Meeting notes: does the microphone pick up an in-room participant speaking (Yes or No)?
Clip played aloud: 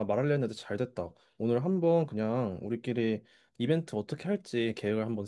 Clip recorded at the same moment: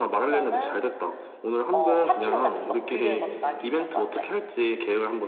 Yes